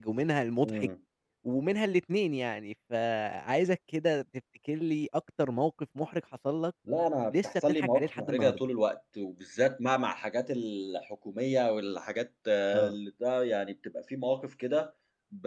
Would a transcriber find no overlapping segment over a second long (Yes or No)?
No